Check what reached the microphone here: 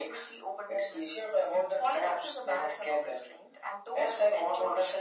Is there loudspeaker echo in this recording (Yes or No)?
Yes